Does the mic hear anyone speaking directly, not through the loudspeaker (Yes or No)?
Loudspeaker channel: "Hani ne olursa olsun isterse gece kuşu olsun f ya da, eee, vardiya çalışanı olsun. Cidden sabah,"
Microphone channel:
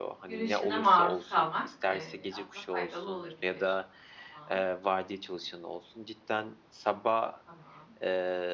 Yes